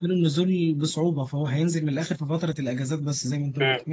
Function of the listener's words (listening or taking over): taking over